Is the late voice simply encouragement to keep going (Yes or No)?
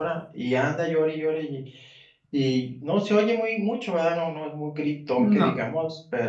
Yes